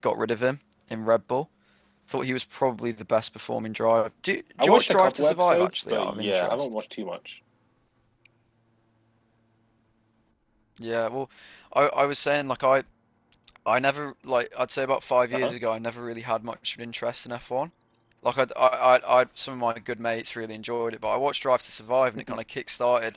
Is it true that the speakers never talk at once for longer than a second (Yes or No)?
No